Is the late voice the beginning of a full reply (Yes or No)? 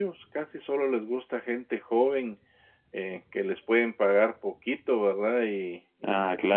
Yes